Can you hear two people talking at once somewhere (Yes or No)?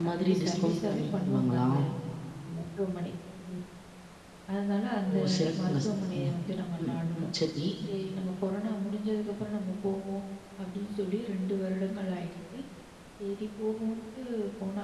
Yes